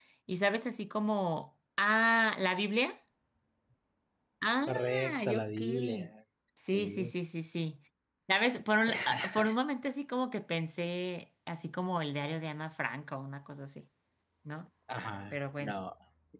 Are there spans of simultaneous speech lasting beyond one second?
Yes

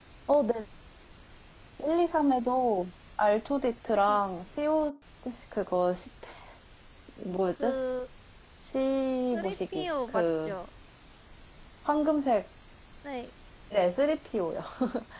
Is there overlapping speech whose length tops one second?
Yes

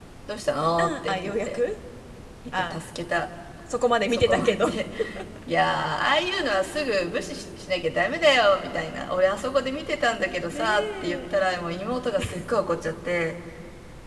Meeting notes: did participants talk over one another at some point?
Yes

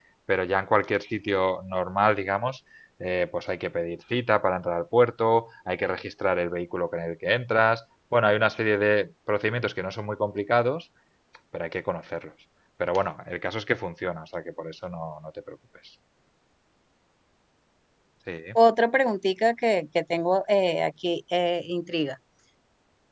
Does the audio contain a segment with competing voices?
No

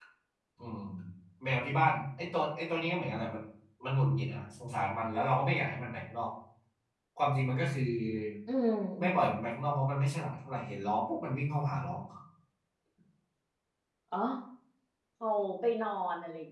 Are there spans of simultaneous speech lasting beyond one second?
No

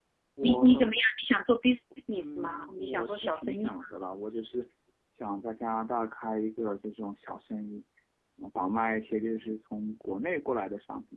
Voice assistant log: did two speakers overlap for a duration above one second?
Yes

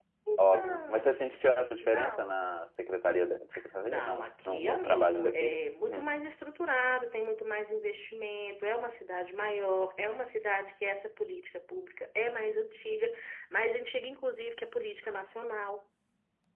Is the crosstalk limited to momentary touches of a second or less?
No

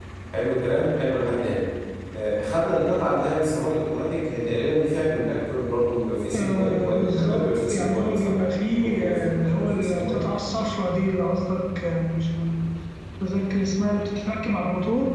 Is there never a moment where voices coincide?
No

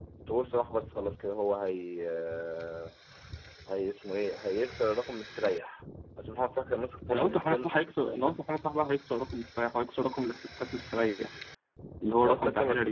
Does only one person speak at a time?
No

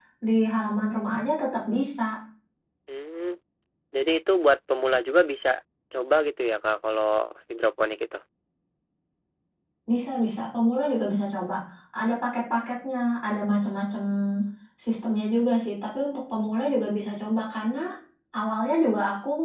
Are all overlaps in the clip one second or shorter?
Yes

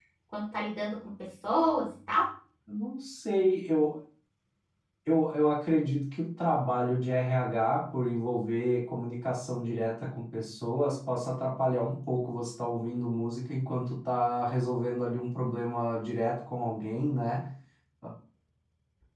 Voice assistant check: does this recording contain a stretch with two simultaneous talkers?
No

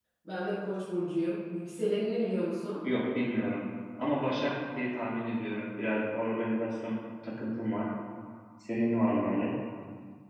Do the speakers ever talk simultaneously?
No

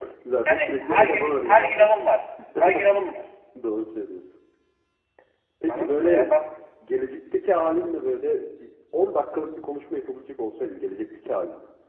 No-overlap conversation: No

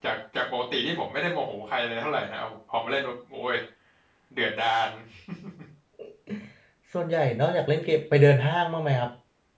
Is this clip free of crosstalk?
Yes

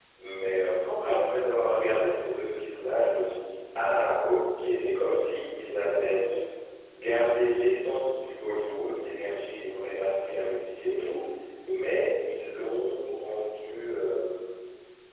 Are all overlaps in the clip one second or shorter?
Yes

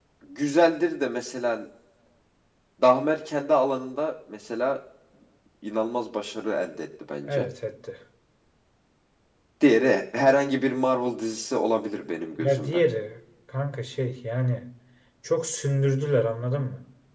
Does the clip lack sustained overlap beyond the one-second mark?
Yes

